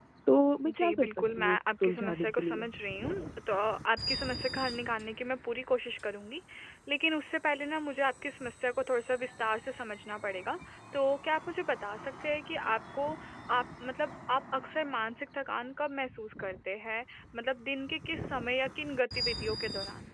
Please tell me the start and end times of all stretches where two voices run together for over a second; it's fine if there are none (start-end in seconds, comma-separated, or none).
0.7-2.7